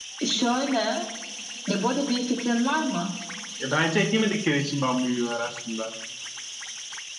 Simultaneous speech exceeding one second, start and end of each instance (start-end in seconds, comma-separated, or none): none